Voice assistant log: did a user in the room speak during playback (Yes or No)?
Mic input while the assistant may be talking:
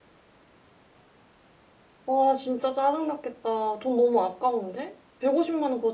Yes